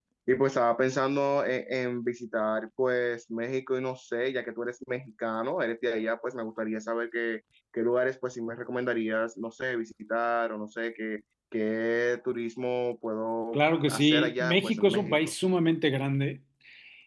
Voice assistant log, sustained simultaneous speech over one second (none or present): present